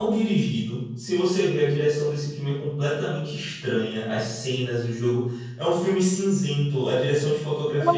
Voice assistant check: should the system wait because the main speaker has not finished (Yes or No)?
No